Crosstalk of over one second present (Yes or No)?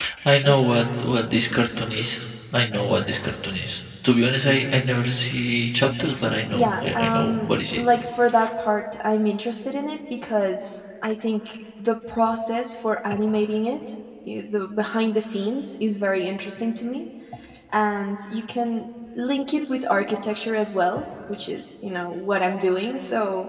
Yes